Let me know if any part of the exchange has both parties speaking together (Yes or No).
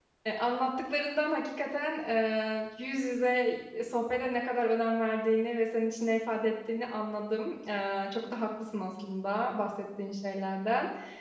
No